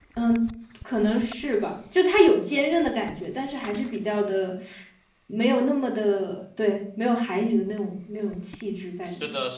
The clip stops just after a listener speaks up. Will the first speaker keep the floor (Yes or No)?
No